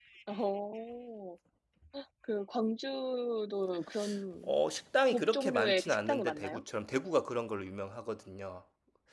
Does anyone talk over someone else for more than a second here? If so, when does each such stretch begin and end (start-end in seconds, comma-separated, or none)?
5.1-6.6